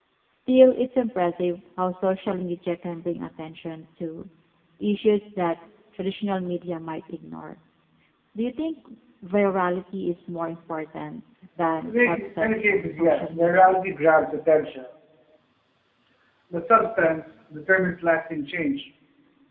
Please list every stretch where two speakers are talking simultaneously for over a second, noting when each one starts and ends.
11.8-13.7

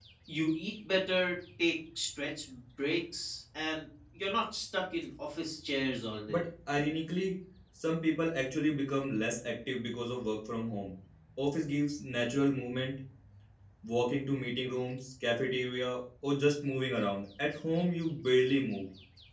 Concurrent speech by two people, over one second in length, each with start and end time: none

